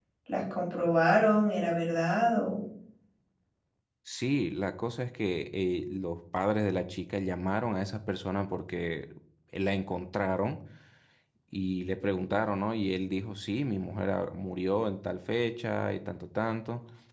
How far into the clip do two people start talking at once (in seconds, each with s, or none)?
none